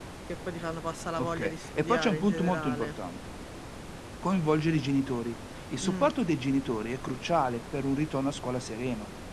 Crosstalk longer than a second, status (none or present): present